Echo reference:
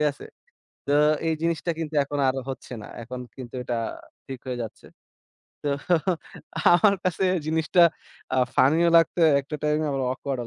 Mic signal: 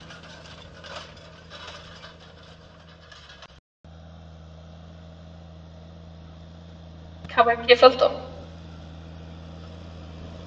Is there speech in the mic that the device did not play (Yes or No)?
Yes